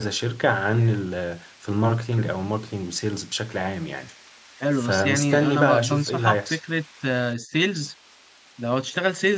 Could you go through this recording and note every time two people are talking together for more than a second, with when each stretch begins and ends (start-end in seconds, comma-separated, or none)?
4.8-6.6